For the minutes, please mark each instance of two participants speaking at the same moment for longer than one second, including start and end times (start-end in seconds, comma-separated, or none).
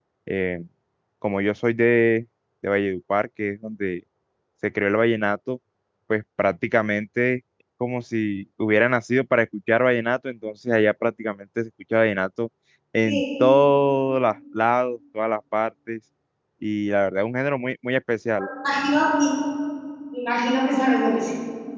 none